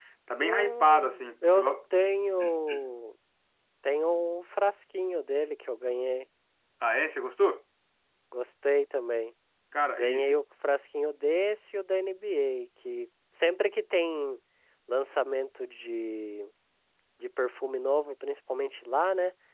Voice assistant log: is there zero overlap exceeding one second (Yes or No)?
No